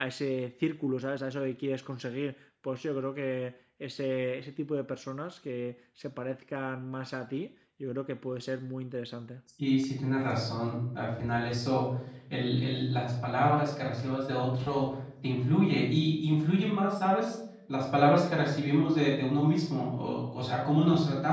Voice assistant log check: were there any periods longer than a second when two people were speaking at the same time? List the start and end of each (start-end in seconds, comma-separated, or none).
none